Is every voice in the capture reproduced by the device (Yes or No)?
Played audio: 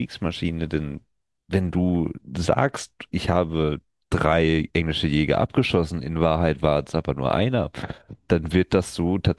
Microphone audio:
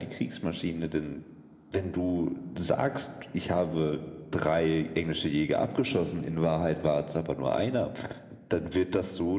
Yes